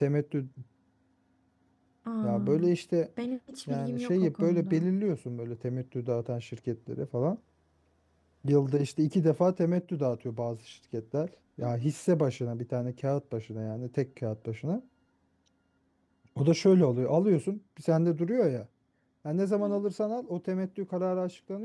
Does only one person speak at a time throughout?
No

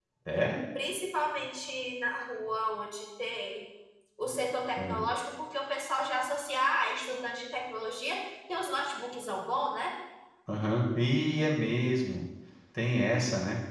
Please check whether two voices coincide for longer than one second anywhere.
No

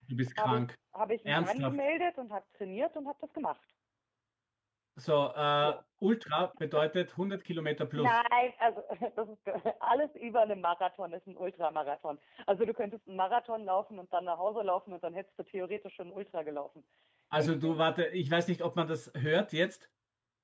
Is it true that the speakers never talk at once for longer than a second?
Yes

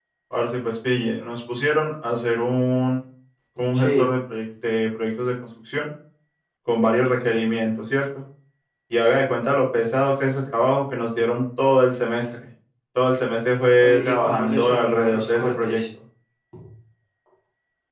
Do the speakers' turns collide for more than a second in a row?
Yes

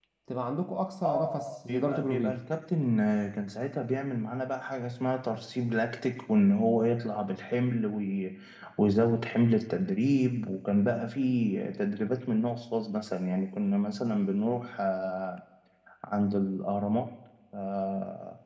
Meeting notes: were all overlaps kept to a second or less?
No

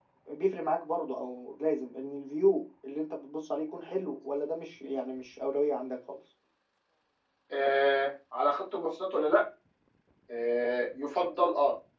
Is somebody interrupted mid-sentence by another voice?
No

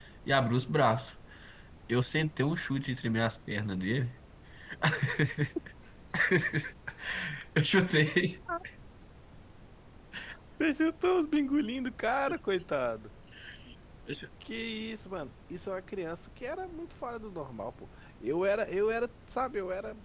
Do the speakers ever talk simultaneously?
No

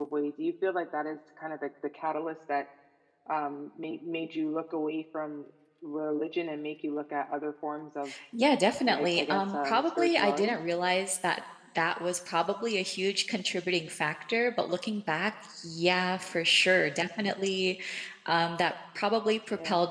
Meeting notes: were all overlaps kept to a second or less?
No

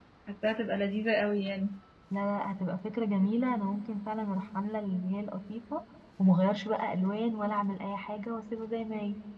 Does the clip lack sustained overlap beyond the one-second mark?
Yes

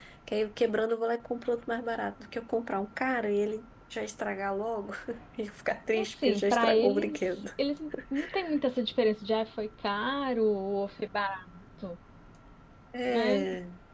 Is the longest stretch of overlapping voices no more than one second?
No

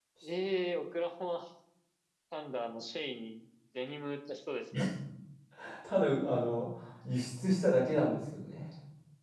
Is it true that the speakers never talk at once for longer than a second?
Yes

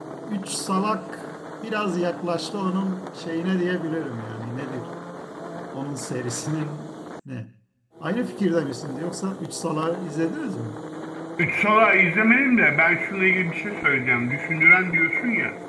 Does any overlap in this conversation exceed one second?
No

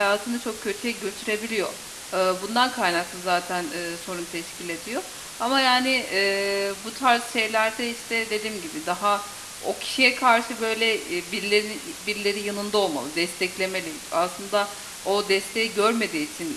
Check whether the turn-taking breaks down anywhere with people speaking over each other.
No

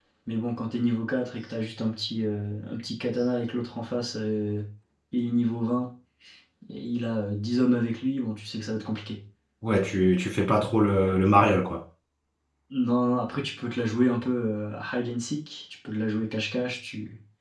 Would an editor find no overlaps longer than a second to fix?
Yes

